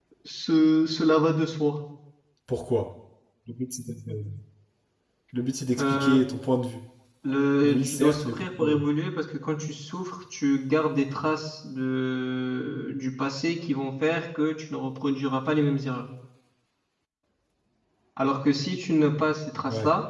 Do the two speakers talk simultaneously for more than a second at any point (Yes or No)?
Yes